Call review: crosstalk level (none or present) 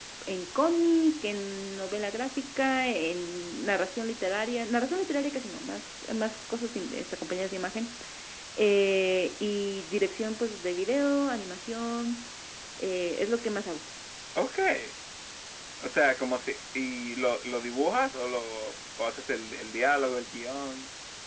none